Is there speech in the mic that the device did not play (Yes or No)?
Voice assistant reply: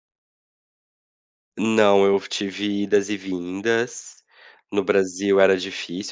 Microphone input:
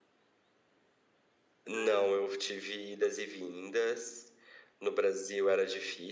Yes